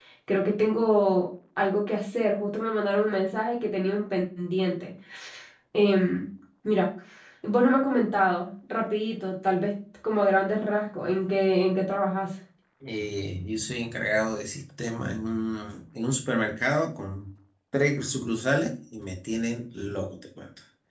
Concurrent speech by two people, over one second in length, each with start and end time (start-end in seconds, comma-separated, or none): none